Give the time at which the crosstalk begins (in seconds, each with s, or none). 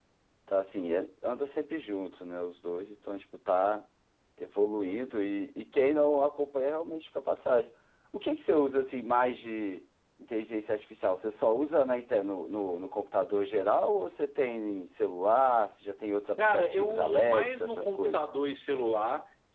16.4 s